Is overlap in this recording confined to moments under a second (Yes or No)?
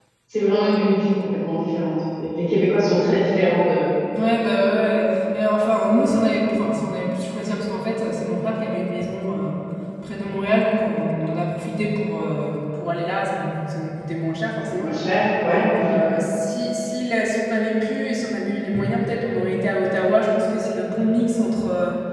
Yes